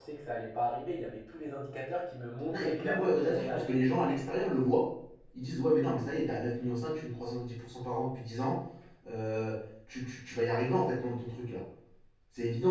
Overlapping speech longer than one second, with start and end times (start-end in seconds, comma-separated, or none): 2.5-3.8